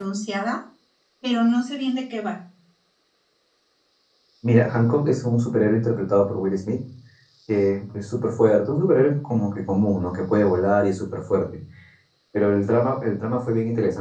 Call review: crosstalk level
none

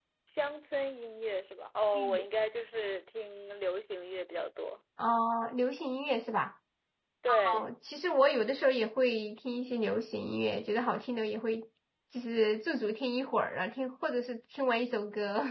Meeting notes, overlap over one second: none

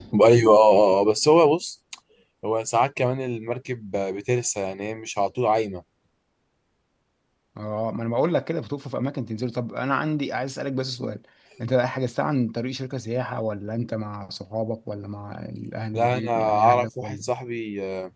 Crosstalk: present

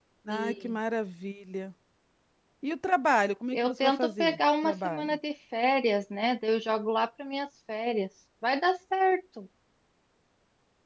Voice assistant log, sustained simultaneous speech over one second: present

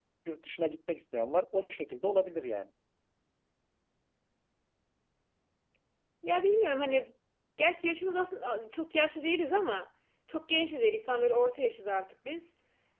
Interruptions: none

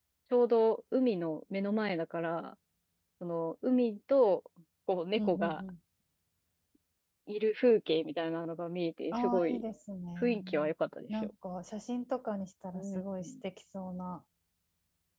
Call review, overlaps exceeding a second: none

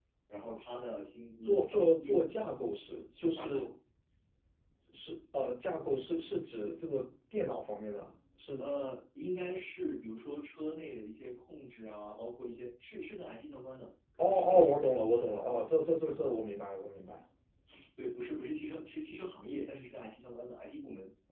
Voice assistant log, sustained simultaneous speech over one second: present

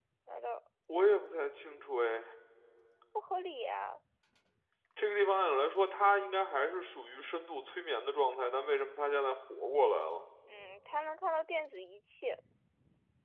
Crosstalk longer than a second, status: none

